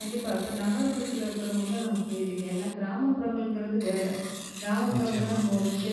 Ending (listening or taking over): listening